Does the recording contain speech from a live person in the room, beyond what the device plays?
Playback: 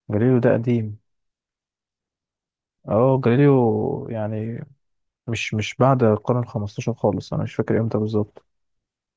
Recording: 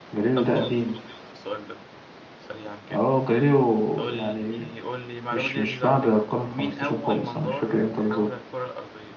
Yes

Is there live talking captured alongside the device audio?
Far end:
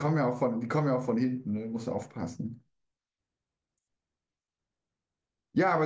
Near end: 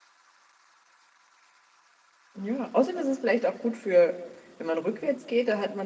Yes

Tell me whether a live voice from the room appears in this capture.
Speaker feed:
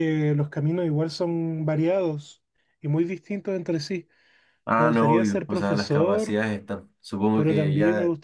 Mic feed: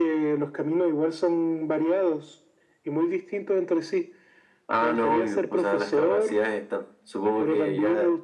No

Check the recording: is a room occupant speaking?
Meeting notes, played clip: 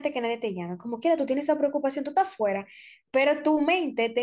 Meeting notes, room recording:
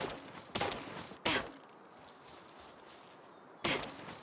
No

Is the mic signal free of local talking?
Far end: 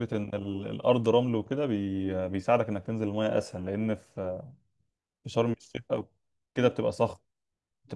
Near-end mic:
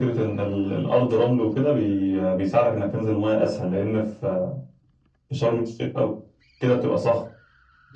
Yes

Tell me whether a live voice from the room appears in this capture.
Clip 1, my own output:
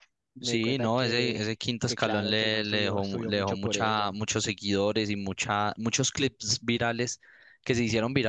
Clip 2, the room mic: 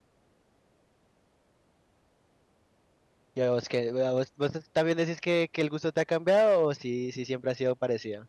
Yes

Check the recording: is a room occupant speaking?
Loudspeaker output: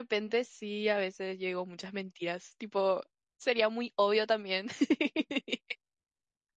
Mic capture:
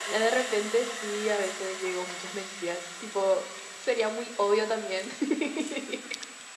No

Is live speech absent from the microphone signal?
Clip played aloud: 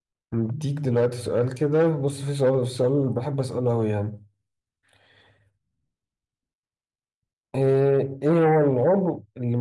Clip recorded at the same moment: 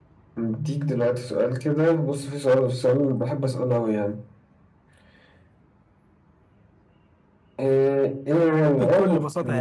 No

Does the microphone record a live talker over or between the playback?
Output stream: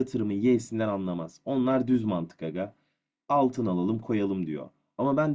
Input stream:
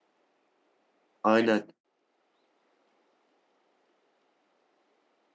Yes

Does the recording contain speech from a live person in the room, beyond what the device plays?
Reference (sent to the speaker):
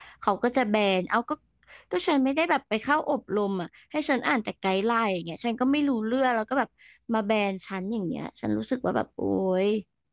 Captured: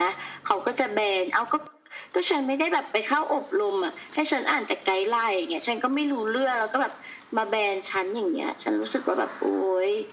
No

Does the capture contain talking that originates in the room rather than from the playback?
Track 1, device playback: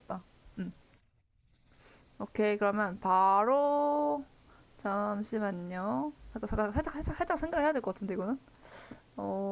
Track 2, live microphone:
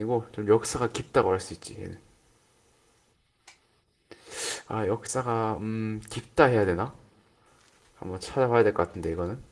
Yes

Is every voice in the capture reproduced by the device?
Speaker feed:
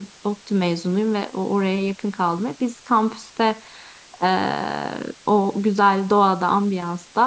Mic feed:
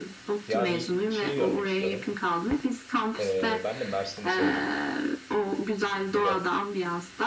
No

